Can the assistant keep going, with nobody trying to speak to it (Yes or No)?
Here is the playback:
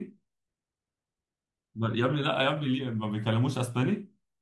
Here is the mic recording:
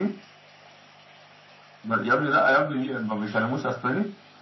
Yes